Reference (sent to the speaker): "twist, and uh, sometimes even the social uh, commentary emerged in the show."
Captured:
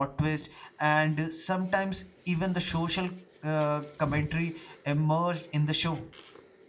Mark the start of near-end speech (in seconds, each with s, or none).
none